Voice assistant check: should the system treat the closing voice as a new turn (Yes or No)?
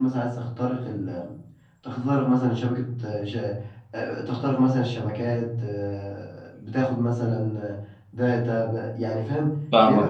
Yes